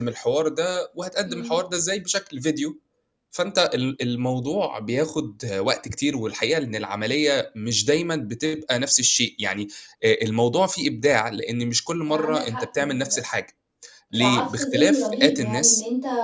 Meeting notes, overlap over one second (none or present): present